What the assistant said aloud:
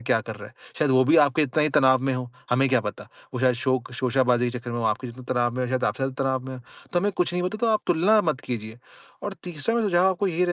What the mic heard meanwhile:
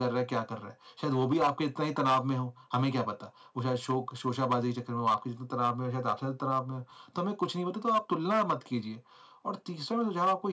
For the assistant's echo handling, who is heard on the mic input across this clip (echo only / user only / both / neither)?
echo only